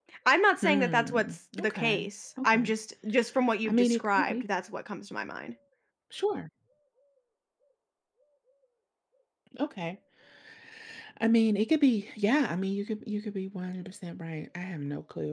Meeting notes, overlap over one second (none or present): present